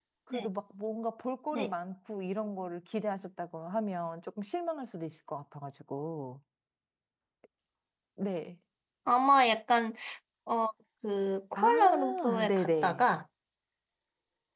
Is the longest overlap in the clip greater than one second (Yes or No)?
Yes